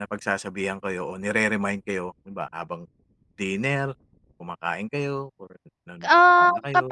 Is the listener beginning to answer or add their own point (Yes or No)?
Yes